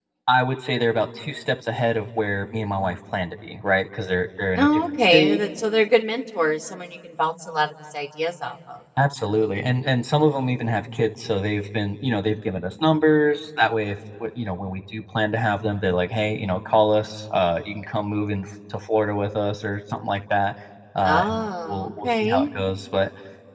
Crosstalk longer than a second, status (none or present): present